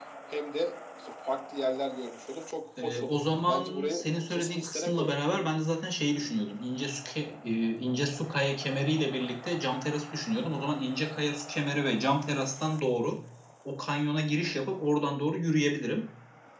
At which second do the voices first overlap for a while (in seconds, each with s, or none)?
2.8 s